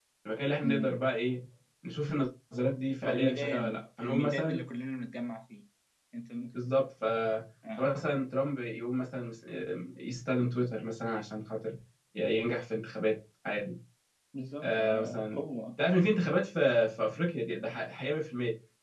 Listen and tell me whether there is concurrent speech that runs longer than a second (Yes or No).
Yes